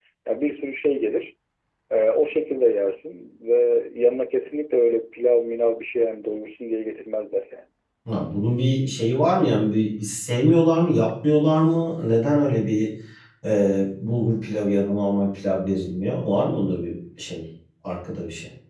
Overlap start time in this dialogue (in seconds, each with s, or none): none